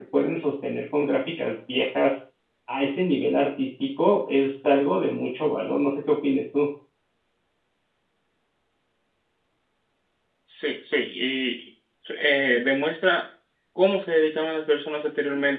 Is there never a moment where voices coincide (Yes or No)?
Yes